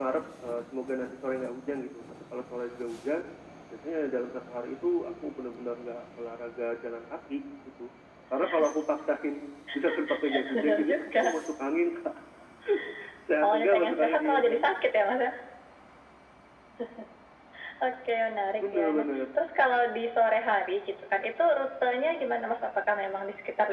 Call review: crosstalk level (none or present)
present